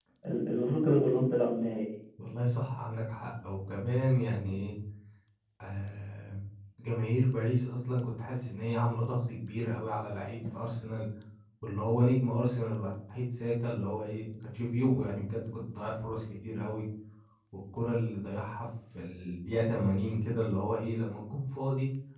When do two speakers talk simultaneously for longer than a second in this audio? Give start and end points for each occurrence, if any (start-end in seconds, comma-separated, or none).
none